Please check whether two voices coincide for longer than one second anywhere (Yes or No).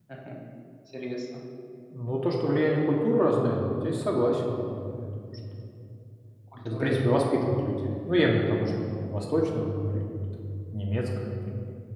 No